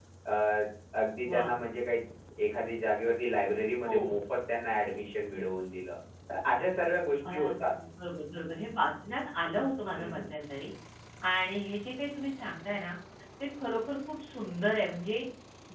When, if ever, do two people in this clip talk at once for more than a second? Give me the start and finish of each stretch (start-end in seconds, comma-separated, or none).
none